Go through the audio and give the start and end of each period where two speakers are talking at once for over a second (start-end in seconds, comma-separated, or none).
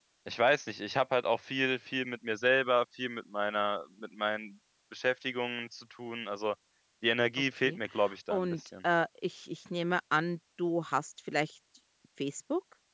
none